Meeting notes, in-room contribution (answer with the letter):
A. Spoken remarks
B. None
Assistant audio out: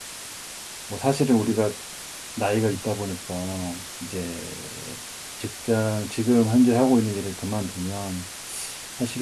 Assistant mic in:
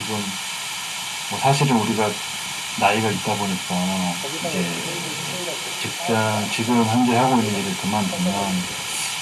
A